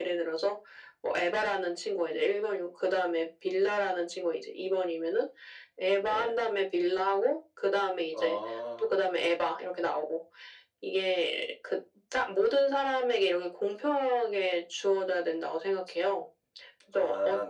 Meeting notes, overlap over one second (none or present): none